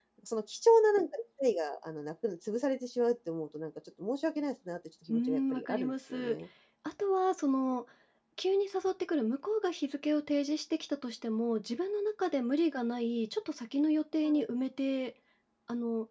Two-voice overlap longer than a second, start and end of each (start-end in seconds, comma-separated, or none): 5.1-6.4